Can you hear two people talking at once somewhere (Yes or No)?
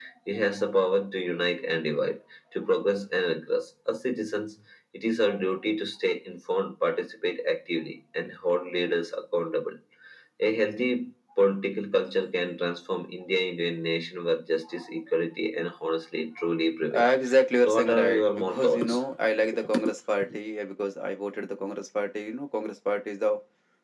Yes